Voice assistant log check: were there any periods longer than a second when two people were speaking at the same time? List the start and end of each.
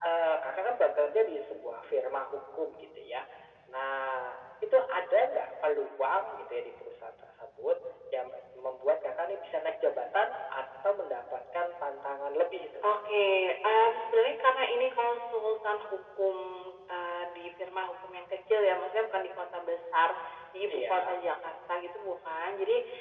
none

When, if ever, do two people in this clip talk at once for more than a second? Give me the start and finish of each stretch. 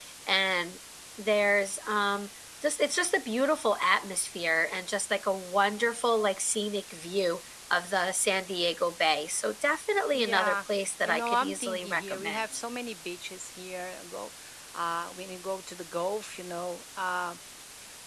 11.1-12.4

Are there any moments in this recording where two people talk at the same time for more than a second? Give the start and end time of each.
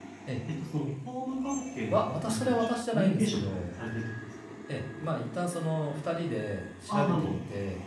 1.9-3.6

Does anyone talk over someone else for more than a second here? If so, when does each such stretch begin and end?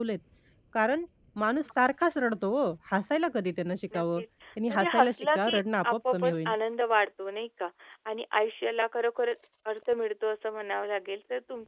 4.7-6.5

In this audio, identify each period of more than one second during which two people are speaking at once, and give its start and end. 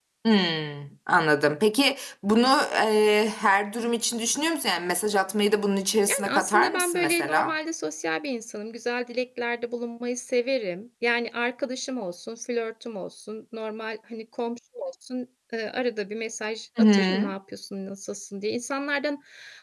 6.1-7.6

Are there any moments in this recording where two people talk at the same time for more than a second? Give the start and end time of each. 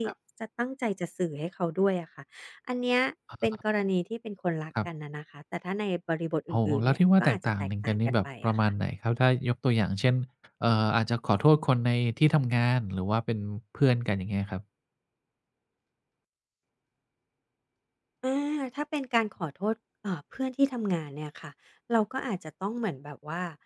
6.5-8.7

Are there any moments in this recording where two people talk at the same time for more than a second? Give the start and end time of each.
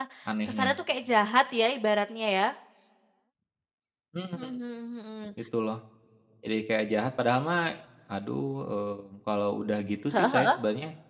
none

